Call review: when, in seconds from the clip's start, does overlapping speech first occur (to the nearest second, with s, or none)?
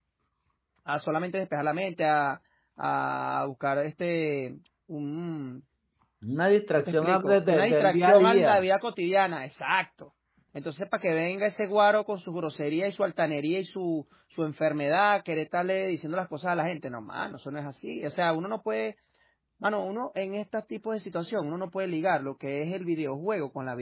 7 s